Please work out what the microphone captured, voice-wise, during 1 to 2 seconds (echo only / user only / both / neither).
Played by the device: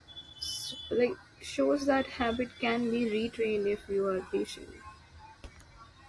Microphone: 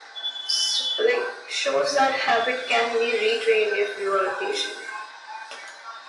echo only